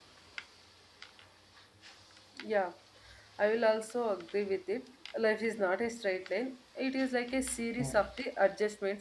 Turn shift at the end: No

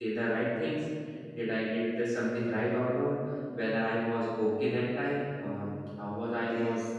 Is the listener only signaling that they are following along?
Yes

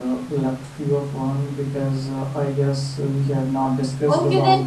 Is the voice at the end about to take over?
Yes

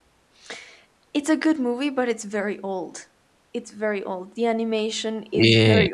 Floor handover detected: Yes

